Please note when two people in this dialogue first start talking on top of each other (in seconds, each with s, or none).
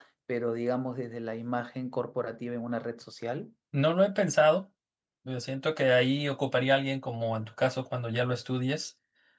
none